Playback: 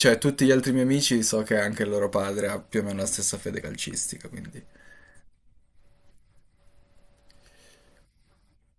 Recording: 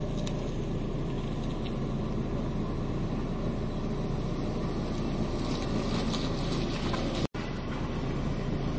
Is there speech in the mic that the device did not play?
No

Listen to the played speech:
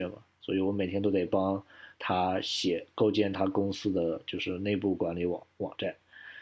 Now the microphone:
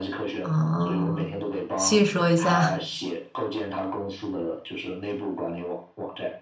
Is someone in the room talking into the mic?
Yes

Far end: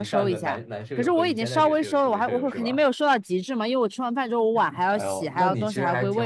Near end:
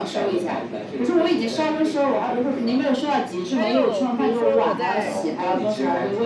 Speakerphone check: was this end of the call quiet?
No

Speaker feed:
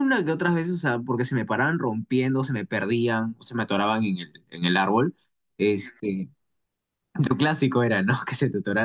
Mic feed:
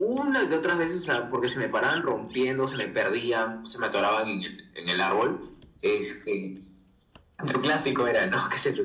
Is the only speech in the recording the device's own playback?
Yes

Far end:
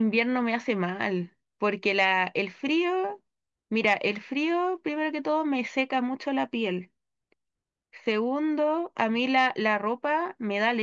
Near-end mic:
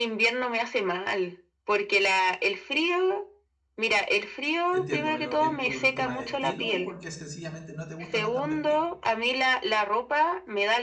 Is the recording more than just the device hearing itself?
Yes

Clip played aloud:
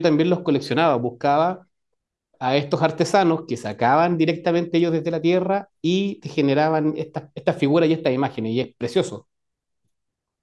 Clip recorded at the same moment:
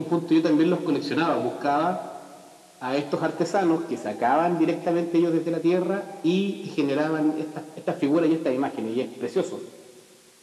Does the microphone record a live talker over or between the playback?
No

